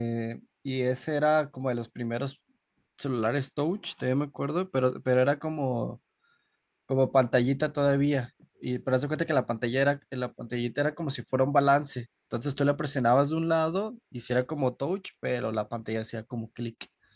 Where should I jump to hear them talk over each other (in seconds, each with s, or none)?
none